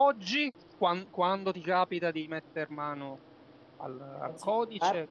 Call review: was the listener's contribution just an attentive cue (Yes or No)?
Yes